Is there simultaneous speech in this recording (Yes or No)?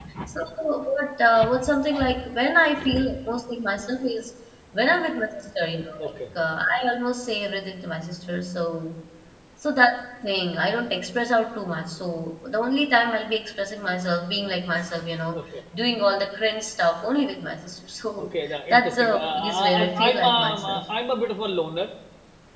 Yes